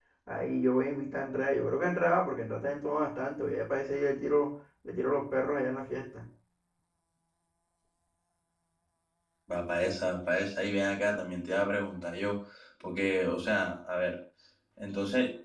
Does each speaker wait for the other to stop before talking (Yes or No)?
Yes